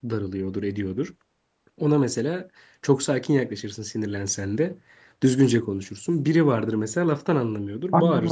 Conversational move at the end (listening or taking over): taking over